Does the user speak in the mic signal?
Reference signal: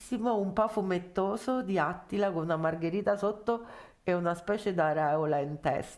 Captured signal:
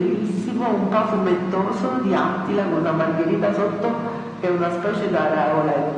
No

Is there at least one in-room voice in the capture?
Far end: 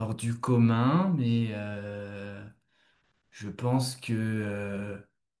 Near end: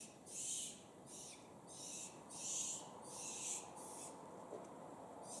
No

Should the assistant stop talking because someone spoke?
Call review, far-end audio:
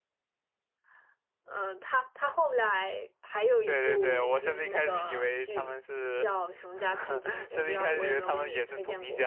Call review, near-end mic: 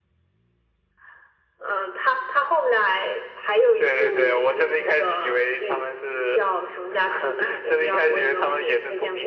No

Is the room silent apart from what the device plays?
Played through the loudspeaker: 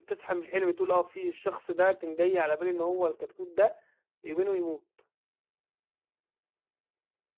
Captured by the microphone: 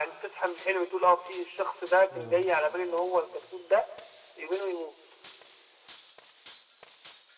No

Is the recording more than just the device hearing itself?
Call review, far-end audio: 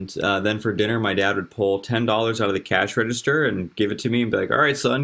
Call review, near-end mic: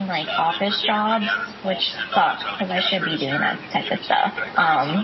Yes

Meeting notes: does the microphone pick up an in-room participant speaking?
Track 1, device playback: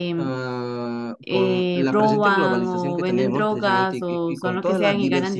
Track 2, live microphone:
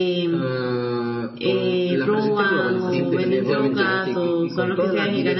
Yes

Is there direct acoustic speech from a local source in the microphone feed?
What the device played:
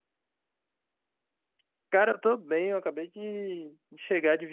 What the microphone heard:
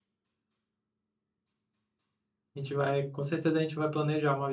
Yes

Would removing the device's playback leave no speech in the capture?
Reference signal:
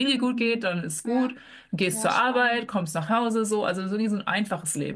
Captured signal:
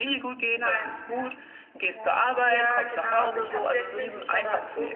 No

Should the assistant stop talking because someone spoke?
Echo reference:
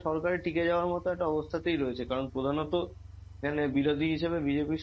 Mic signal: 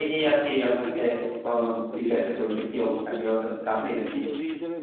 Yes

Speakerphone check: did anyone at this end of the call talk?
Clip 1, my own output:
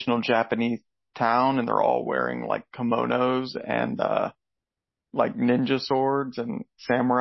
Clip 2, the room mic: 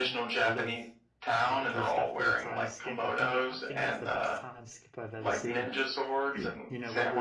Yes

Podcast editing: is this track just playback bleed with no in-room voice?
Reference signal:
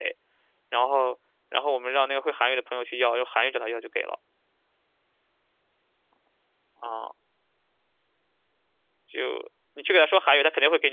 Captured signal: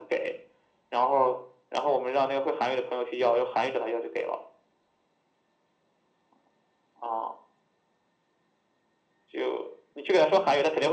Yes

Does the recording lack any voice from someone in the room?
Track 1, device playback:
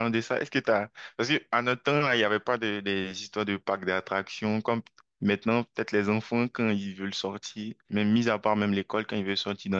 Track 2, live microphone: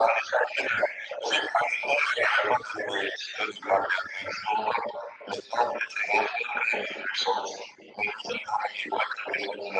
Yes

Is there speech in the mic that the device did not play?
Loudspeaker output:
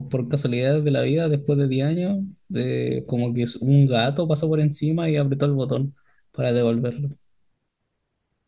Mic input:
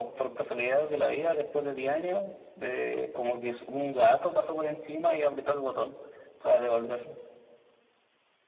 No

